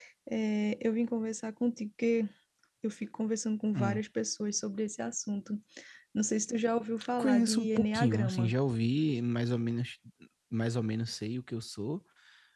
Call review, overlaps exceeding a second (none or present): present